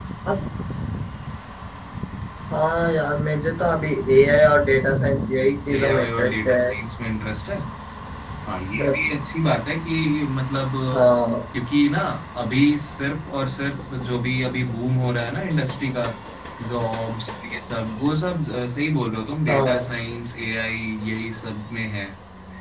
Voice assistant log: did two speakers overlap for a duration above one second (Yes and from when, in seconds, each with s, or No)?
Yes, from 4.9 s